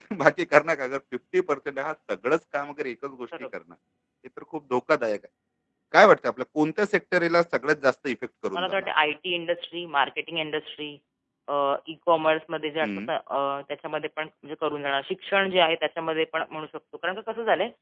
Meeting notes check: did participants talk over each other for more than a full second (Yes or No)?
No